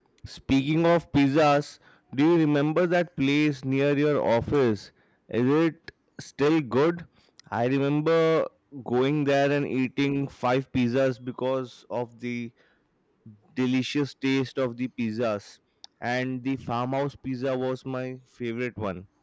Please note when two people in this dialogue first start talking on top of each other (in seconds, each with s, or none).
none